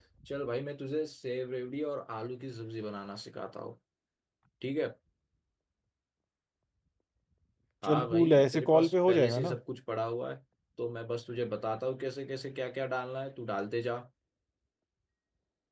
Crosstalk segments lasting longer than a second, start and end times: 7.8-9.6

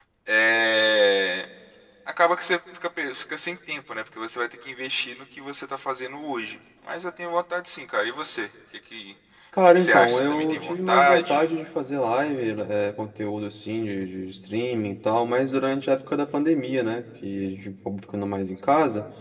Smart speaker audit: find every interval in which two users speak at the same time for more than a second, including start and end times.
9.7-11.5

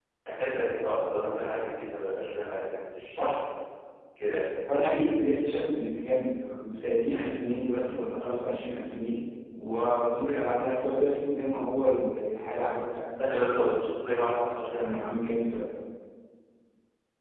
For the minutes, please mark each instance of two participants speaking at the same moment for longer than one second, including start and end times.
none

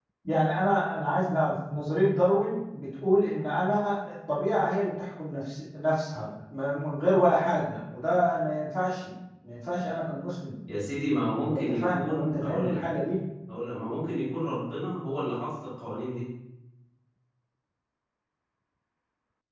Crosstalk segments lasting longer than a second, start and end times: 11.4-12.8

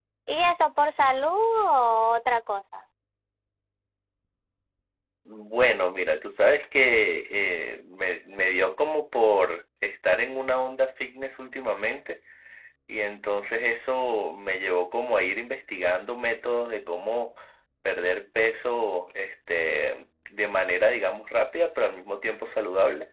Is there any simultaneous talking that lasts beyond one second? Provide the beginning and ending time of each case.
none

